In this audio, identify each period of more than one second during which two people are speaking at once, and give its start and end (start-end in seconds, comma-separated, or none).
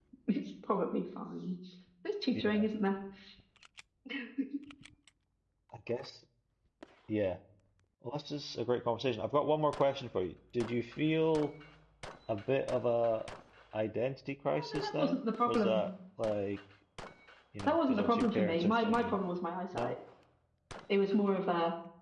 14.5-15.8, 17.7-19.1